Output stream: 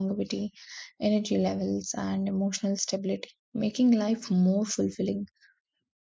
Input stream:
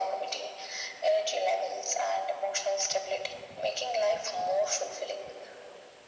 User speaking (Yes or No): No